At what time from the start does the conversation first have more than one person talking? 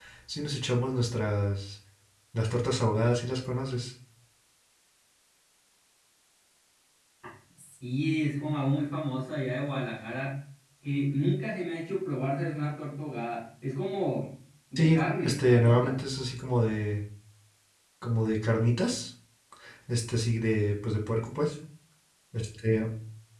14.8 s

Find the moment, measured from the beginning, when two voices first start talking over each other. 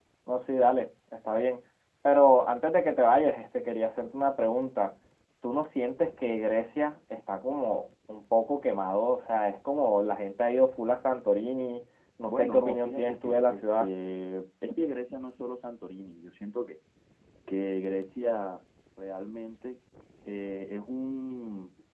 12.3 s

